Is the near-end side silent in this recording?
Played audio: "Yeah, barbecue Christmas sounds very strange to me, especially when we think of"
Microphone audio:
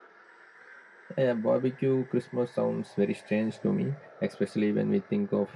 Yes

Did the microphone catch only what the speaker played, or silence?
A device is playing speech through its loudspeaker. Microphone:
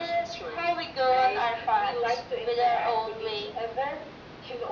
Yes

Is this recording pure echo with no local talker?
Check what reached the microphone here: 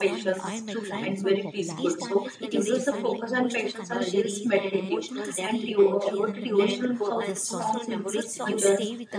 No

